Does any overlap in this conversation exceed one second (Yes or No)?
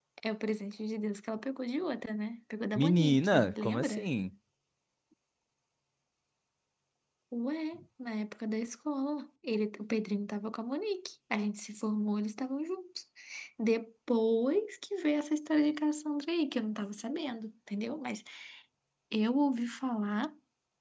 Yes